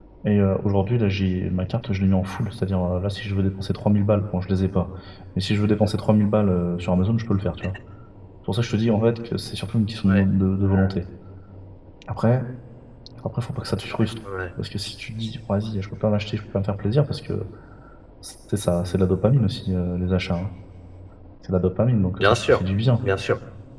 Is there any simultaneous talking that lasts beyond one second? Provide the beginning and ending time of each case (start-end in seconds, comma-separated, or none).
none